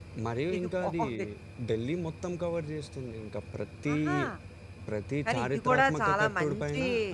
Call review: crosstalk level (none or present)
present